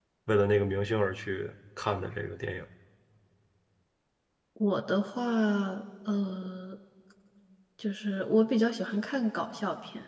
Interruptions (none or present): none